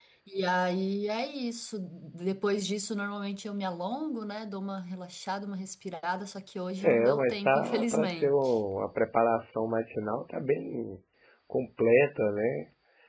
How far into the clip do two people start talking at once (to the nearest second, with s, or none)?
7 s